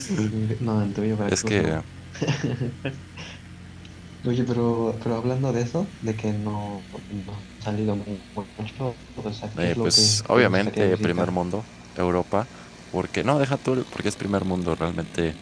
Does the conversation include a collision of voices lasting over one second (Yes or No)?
Yes